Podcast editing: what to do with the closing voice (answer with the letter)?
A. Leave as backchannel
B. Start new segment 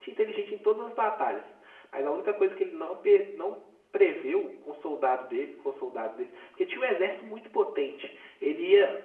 A